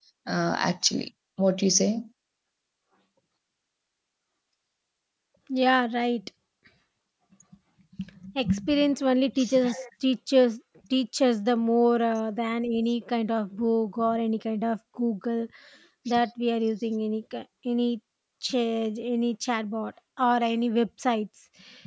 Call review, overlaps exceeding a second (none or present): none